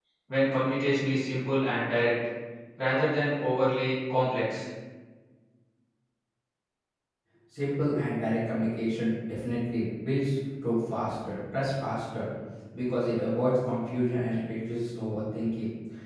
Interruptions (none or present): none